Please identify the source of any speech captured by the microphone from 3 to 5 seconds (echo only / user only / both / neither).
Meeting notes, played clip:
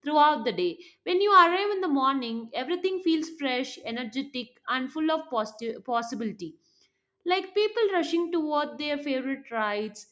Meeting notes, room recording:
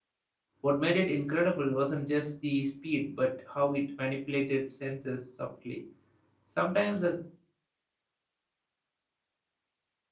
user only